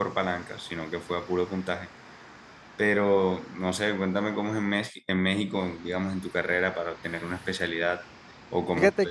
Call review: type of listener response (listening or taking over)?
taking over